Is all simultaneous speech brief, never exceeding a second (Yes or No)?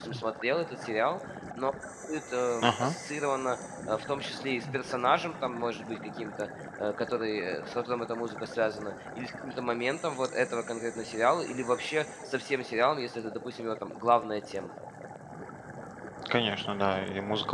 Yes